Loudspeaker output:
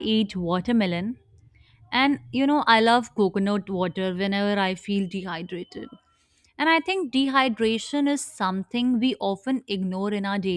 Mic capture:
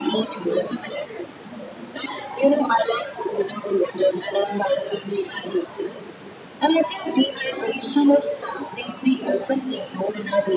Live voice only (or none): none